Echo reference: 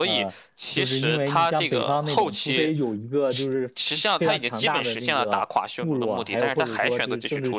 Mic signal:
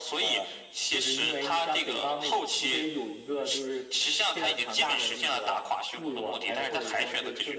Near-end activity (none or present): none